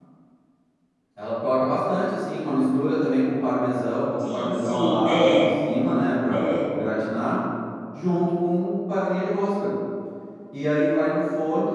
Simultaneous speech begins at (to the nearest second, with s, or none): 4 s